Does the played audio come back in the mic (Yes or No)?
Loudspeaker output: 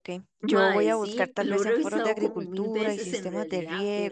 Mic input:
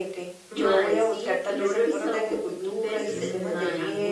Yes